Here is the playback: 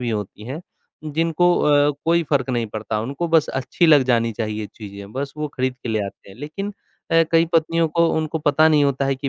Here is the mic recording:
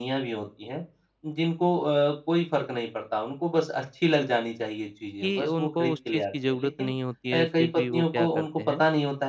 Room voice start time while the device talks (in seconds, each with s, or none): 5.2 s